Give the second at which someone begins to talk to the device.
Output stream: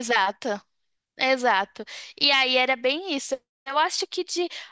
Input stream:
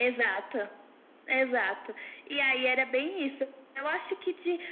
none

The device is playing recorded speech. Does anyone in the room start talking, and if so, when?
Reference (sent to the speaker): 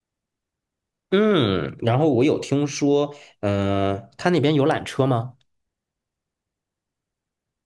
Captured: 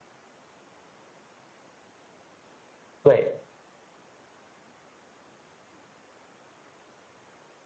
3.0 s

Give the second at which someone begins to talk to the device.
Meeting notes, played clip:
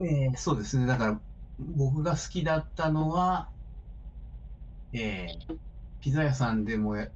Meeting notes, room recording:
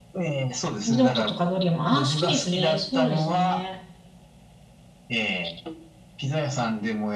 0.8 s

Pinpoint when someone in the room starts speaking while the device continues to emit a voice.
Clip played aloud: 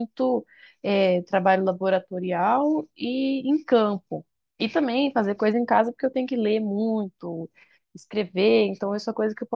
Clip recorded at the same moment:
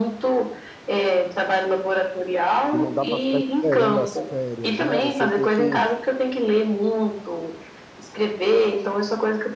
2.7 s

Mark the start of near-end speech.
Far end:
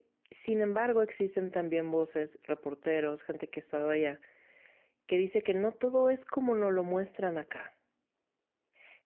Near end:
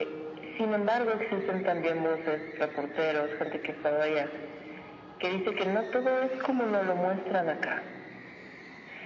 none

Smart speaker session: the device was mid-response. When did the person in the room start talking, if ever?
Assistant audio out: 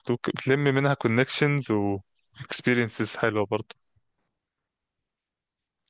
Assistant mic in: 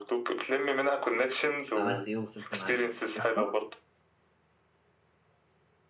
1.8 s

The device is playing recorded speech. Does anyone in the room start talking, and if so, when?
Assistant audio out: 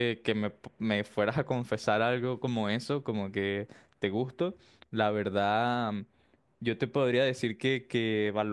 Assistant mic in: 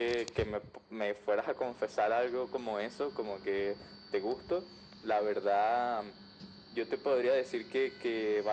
none

